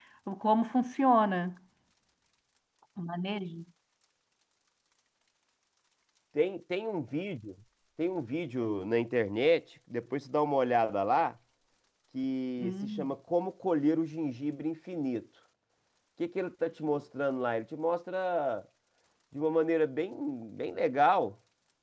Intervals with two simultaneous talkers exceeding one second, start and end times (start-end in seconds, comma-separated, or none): none